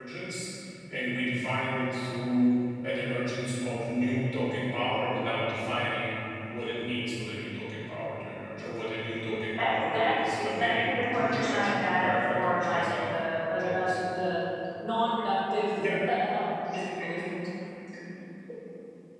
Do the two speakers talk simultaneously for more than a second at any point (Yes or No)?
Yes